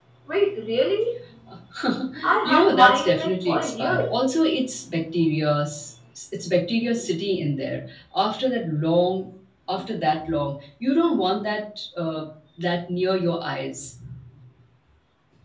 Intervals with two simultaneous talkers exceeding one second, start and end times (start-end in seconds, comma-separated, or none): 2.4-4.1